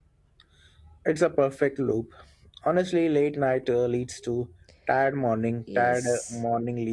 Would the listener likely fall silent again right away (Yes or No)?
No